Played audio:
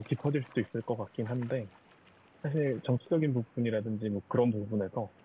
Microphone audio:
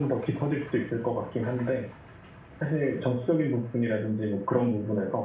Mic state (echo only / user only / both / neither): echo only